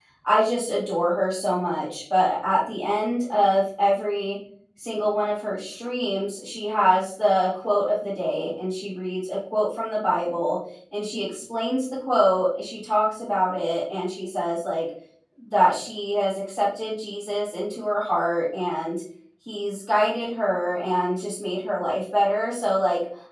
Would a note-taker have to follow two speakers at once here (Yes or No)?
No